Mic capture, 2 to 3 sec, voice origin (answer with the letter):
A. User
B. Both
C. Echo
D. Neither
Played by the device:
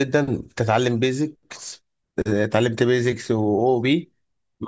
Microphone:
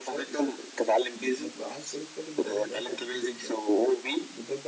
B